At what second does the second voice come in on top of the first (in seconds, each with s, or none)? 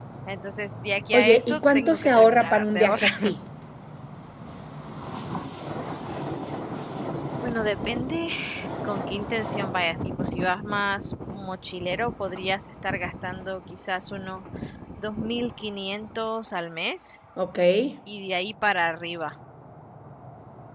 1.1 s